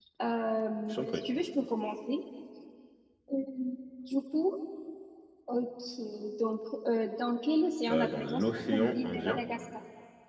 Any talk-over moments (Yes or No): Yes